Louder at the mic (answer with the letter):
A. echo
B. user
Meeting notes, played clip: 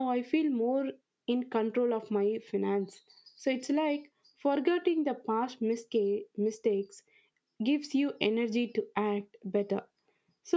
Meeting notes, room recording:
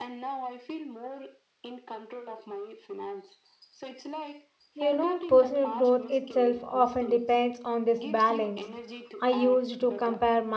B